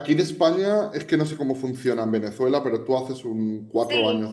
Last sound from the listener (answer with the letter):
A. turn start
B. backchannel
A